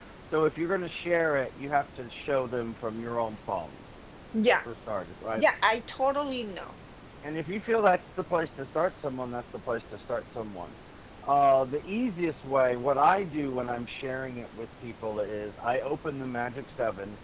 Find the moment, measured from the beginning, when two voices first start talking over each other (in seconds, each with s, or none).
none